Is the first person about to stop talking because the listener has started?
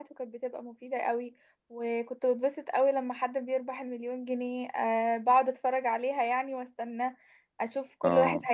No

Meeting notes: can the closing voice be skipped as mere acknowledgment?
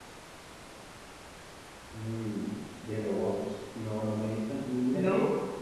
Yes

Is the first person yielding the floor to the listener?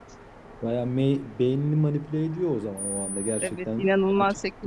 Yes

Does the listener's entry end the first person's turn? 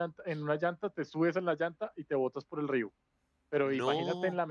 No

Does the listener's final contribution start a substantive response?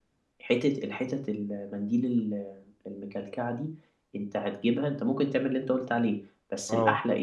No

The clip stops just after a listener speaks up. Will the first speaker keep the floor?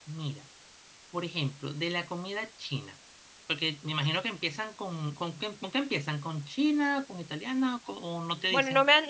No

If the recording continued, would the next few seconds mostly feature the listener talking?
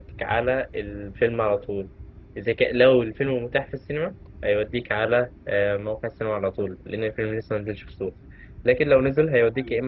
No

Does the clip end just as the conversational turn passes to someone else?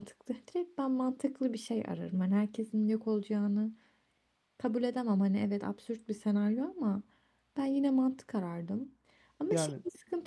No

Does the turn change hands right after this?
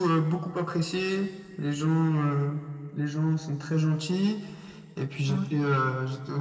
No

